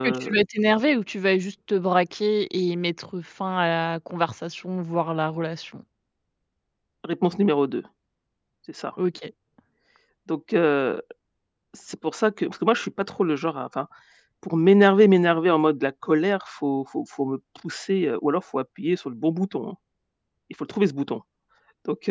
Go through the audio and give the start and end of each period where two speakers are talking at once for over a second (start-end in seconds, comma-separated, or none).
none